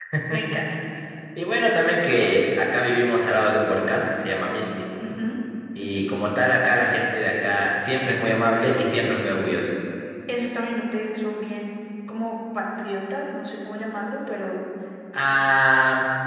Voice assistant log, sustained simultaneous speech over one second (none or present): none